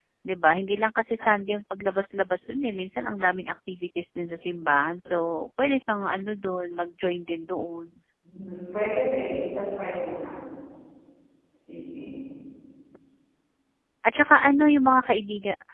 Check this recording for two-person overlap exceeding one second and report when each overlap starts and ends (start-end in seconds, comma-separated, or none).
none